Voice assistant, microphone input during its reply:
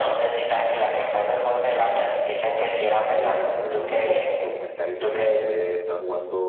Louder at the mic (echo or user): echo